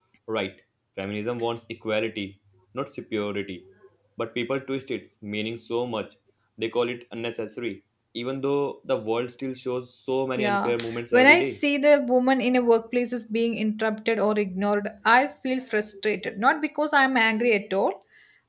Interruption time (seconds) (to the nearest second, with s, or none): 10 s